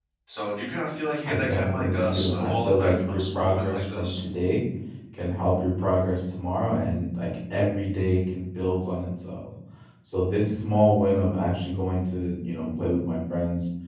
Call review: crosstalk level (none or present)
present